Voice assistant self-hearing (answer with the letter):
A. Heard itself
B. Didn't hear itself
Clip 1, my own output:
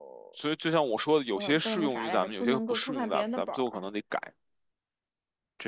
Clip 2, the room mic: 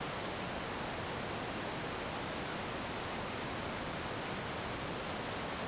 B